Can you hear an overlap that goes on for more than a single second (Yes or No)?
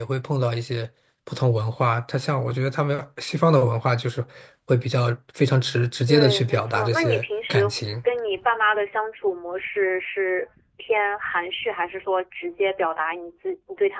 Yes